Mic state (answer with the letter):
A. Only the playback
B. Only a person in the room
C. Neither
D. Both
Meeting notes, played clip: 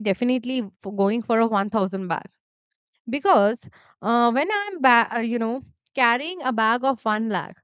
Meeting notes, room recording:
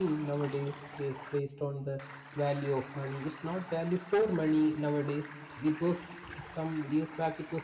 B